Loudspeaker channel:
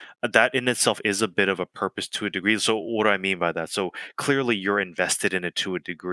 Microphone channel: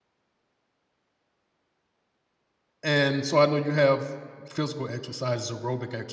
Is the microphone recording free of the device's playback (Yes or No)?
Yes